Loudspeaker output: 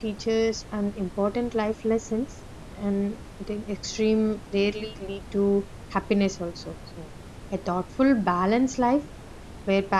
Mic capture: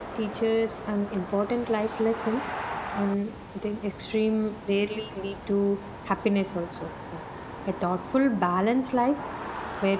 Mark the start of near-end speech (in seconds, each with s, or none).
none